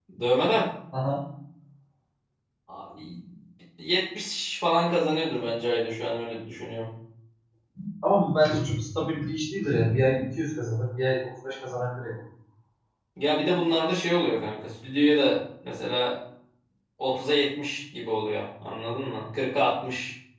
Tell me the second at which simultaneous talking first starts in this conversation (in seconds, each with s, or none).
none